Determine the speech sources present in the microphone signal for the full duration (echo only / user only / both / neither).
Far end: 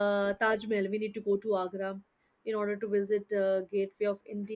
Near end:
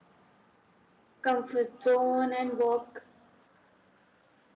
user only